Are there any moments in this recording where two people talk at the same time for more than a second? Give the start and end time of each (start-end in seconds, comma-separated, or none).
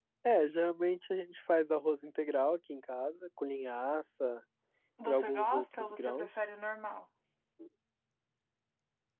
5.0-6.3